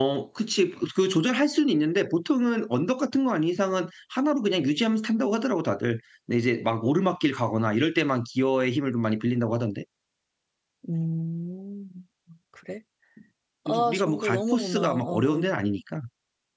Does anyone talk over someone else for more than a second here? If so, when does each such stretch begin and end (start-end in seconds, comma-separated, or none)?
13.7-15.5